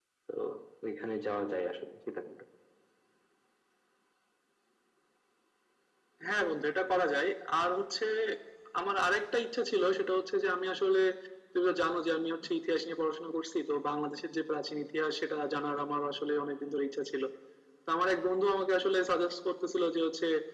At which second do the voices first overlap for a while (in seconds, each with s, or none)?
none